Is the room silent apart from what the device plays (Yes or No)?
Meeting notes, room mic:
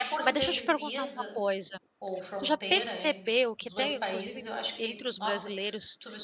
No